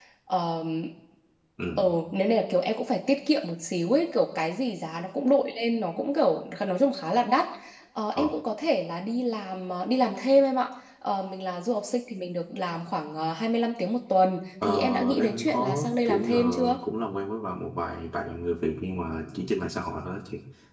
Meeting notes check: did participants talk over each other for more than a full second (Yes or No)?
Yes